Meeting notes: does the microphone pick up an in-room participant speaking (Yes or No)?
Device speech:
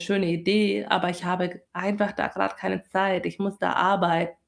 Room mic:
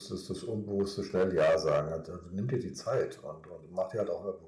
Yes